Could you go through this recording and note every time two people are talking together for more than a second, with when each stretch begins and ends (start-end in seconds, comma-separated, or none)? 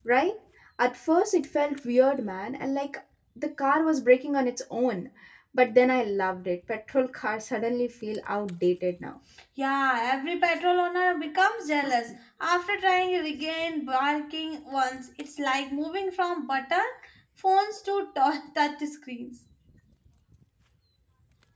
none